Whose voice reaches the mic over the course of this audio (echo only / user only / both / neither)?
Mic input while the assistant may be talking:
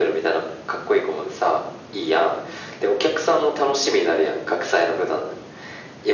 echo only